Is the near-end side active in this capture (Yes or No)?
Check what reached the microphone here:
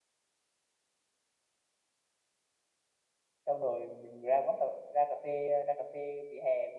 Yes